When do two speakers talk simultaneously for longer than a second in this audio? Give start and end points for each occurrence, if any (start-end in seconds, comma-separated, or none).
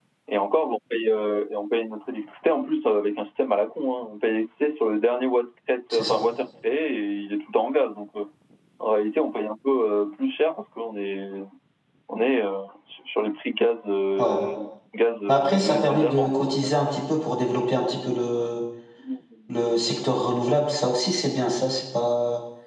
15.3-16.7